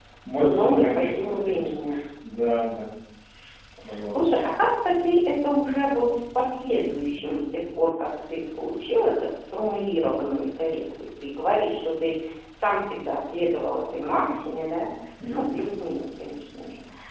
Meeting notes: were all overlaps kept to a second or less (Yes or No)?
No